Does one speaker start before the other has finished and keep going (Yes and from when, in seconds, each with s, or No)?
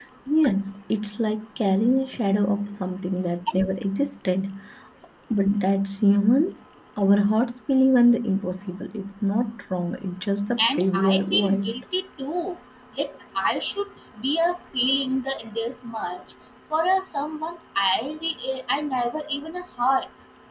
Yes, from 10.6 s